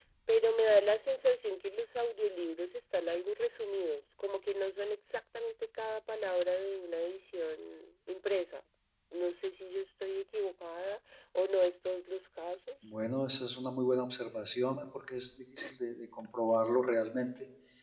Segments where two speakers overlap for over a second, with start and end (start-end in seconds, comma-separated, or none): none